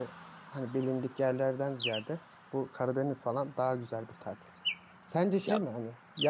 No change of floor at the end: Yes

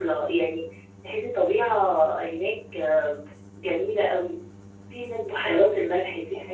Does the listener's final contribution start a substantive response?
No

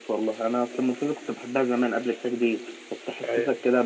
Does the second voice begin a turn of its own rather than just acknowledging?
No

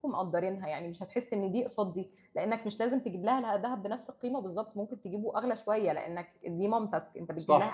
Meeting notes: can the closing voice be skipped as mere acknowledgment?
No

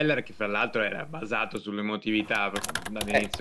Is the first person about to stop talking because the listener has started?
Yes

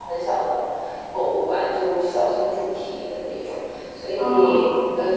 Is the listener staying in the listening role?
Yes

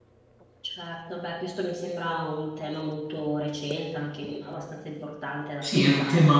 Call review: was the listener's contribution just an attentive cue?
No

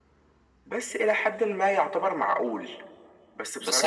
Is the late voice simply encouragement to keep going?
No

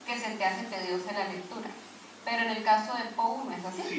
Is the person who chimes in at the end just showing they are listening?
No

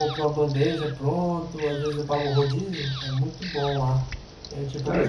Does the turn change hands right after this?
No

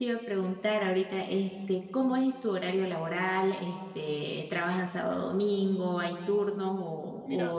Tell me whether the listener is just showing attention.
No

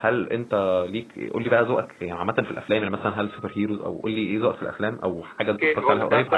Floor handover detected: Yes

